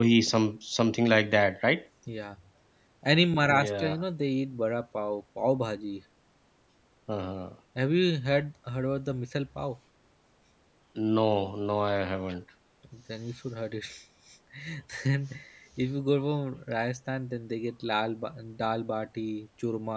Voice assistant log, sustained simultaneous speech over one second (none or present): none